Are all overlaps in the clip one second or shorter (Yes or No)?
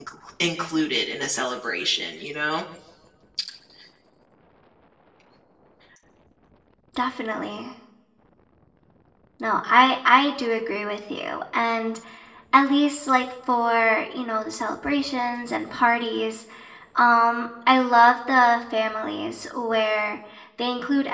Yes